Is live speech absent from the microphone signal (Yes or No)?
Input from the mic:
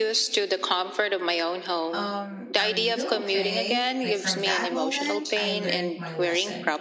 No